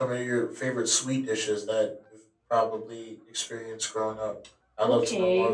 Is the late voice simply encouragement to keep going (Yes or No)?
No